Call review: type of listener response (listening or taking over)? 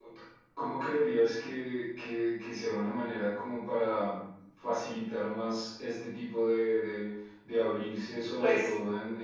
listening